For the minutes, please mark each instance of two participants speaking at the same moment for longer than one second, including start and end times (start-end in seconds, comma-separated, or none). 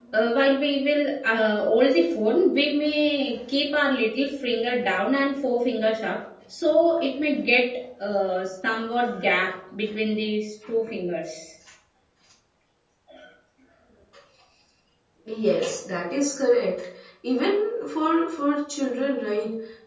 none